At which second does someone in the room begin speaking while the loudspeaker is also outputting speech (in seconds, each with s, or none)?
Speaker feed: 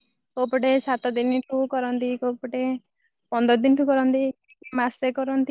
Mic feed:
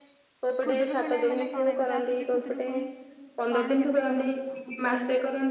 0.6 s